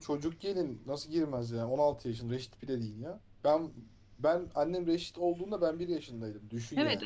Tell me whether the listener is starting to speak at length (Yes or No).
Yes